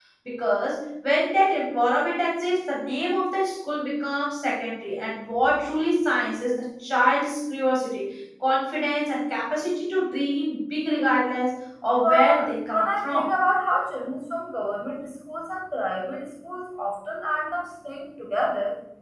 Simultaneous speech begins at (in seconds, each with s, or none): 12.0 s